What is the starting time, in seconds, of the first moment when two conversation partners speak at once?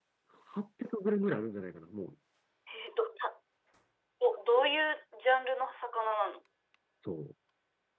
none

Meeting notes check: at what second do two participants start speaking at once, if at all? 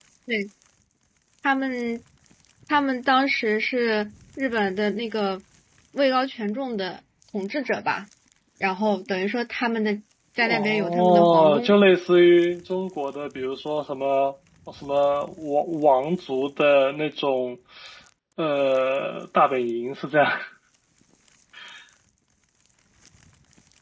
10.4 s

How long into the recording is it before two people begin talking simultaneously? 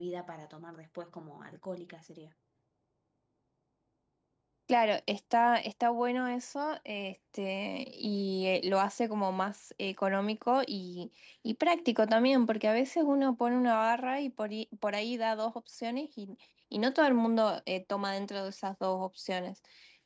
none

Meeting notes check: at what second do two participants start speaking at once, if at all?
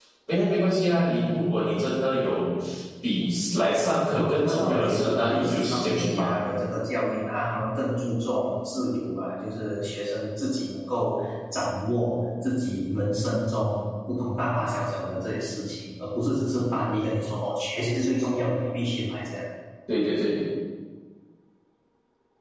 4.1 s

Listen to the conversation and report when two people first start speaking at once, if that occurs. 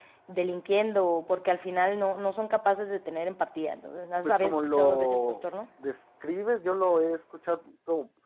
4.2 s

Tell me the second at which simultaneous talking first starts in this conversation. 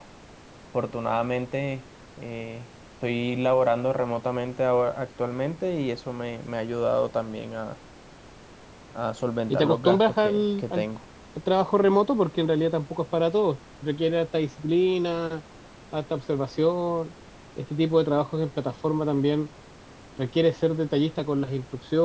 9.5 s

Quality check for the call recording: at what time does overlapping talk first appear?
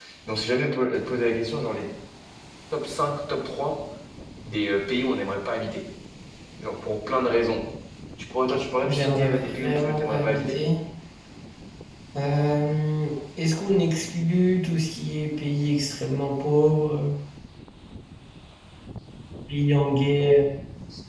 8.8 s

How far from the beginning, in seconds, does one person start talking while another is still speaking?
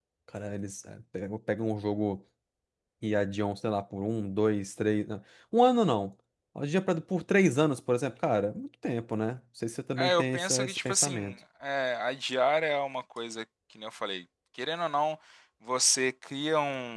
10.0 s

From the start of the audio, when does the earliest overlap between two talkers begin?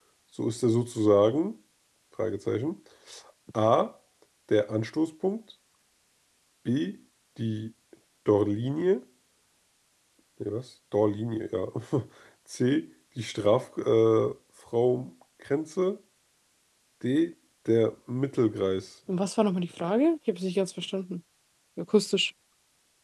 none

